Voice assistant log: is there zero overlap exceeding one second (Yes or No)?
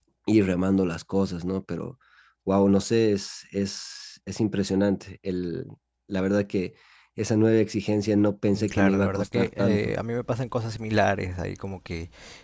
No